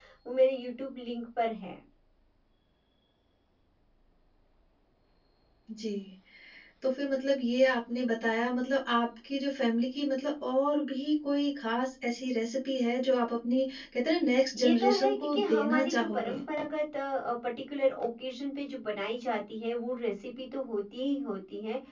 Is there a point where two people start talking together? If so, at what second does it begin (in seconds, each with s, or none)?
14.6 s